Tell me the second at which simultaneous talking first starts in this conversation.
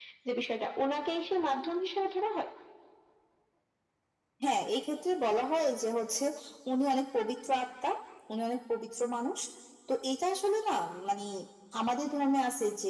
none

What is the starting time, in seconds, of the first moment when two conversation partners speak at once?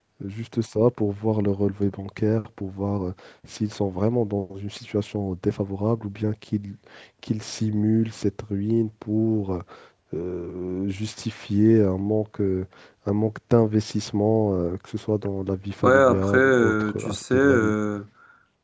16 s

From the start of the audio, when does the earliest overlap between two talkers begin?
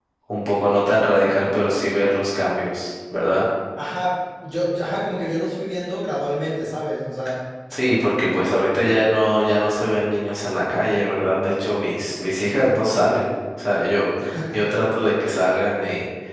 none

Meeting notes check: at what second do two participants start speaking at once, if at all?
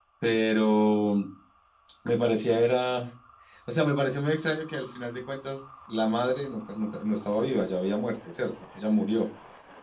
none

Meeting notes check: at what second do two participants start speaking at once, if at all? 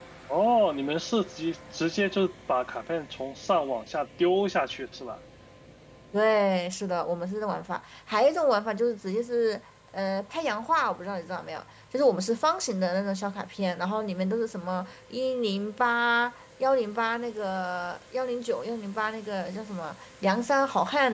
none

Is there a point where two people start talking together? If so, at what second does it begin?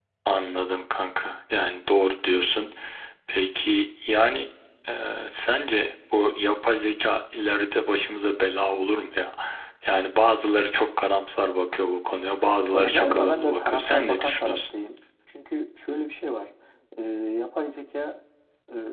13 s

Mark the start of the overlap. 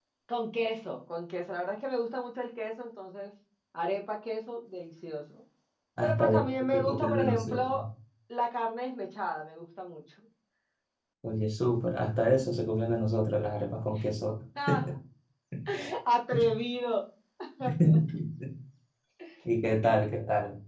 6 s

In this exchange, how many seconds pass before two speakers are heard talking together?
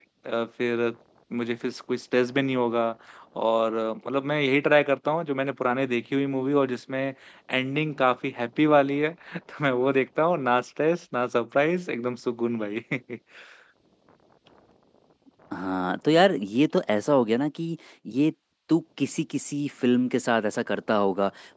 none

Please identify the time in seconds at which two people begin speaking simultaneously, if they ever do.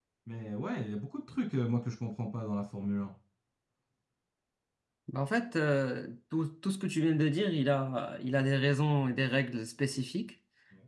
none

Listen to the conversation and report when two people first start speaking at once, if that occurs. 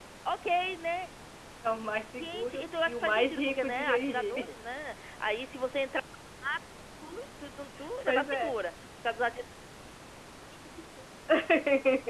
2 s

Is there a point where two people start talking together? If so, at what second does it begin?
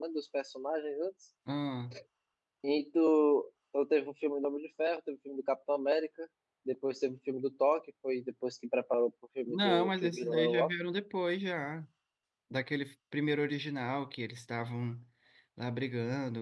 9 s

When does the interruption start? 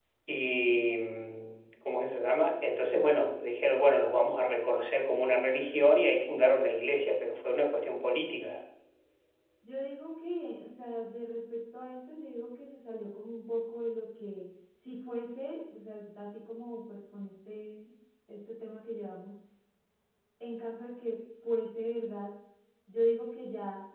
none

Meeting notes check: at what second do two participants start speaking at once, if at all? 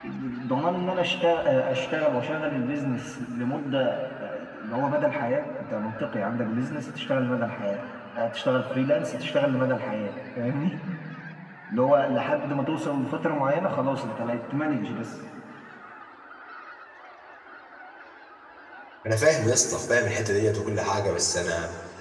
none

